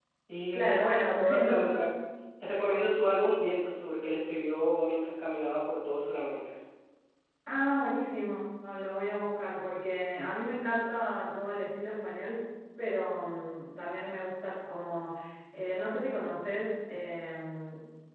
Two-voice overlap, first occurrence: 1 s

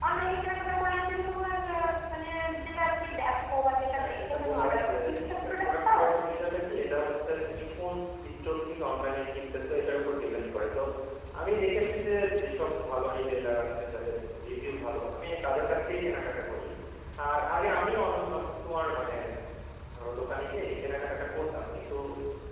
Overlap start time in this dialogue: 4 s

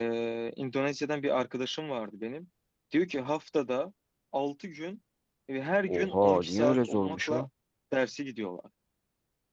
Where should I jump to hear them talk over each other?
6 s

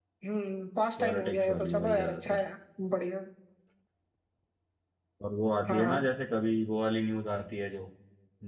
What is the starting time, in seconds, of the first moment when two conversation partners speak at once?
1 s

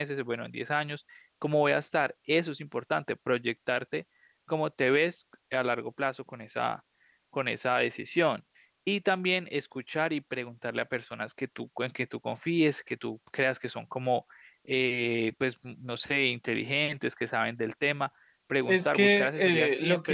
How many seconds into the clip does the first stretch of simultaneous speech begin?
19 s

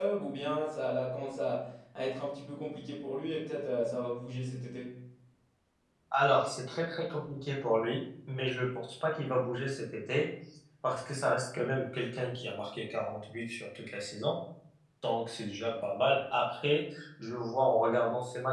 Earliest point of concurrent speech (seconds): none

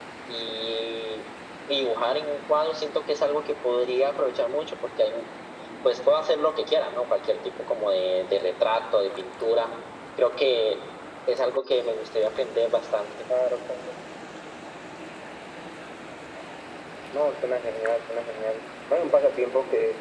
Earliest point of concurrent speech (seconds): none

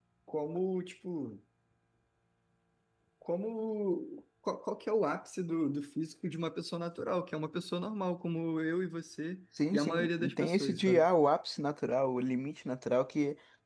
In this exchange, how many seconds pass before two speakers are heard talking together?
10 s

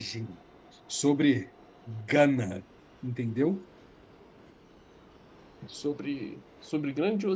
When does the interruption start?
none

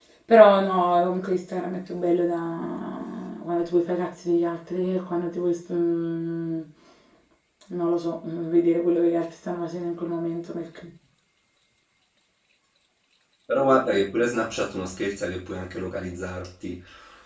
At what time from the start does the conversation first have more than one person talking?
none

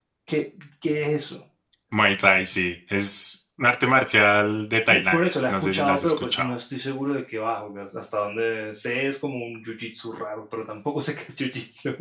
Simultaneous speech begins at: 5 s

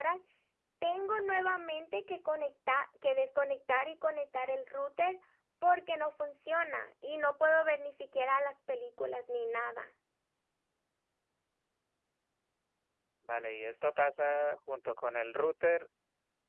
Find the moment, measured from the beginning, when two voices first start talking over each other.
none

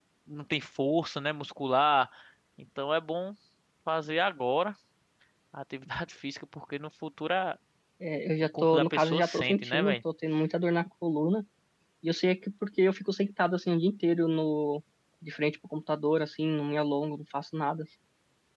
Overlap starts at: 9 s

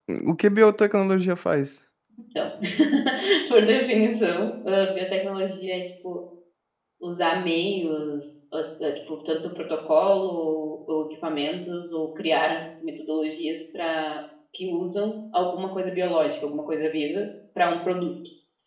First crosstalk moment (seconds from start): none

